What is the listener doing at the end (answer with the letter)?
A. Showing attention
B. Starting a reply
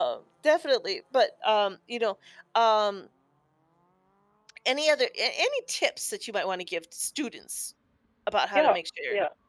B